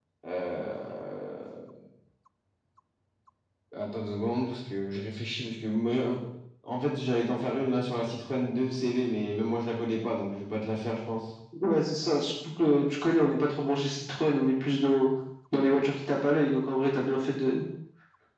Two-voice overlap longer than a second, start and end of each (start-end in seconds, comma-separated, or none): none